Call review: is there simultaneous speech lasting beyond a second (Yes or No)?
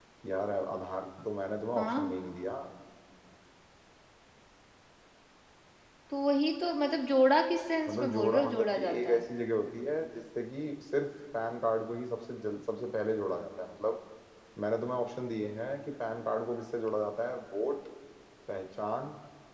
Yes